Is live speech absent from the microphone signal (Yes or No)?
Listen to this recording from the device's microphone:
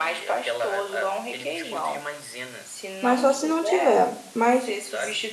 No